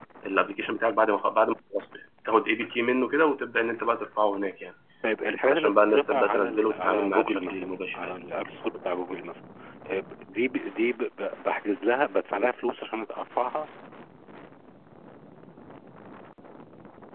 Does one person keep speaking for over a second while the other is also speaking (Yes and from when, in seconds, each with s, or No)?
Yes, from 5.5 s